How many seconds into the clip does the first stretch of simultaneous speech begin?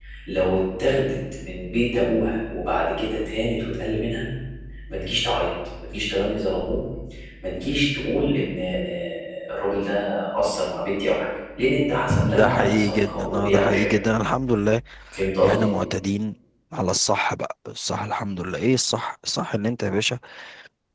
12.2 s

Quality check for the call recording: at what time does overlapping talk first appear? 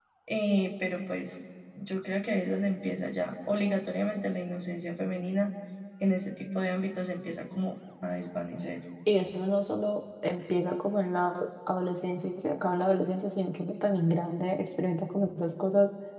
none

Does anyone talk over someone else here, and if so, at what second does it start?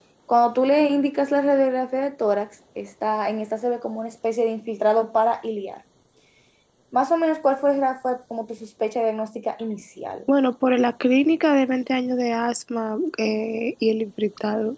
none

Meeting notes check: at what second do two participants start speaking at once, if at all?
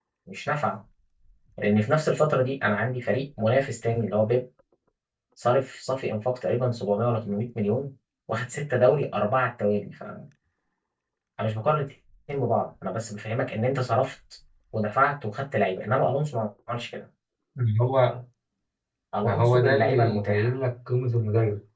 19.2 s

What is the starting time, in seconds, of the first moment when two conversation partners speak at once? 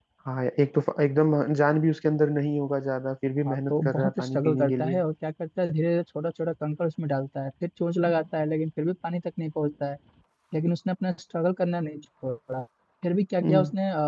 3.4 s

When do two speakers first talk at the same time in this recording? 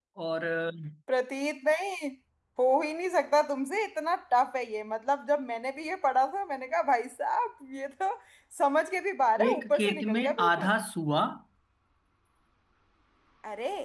9.5 s

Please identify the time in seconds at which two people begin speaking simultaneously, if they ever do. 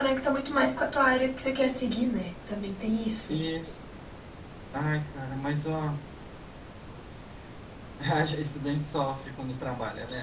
none

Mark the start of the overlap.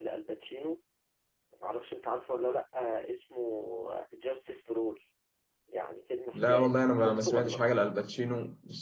6.3 s

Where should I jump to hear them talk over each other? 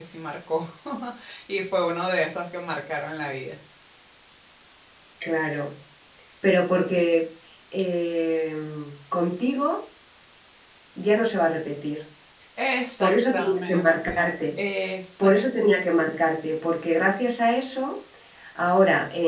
13.0 s

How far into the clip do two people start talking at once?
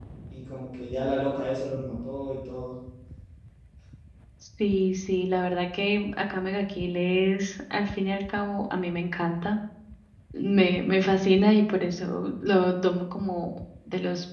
none

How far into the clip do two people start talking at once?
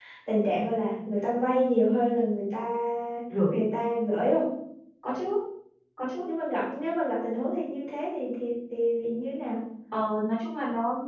none

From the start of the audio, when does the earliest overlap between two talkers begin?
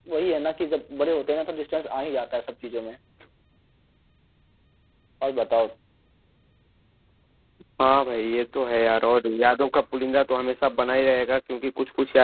none

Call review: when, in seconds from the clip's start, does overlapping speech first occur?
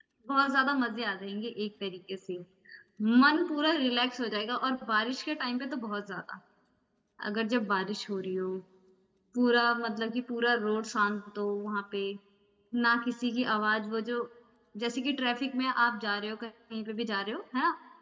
none

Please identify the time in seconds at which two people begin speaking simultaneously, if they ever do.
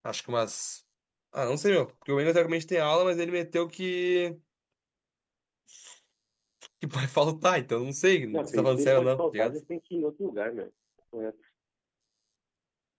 8.3 s

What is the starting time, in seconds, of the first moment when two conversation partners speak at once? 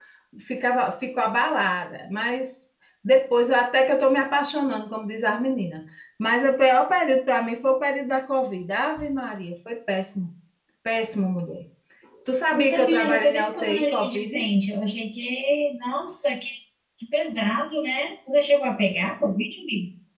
12.5 s

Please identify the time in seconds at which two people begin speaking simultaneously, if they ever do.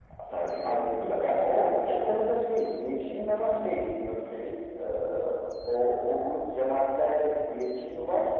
0.6 s

